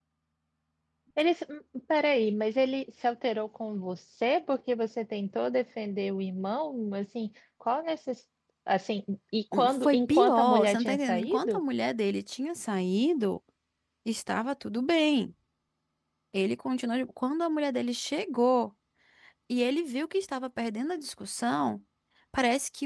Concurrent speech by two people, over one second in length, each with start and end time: 9.5-11.6

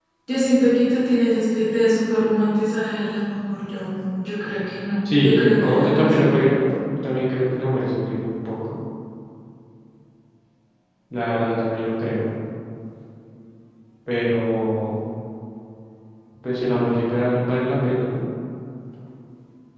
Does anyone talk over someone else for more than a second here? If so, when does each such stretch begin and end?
5.2-6.6

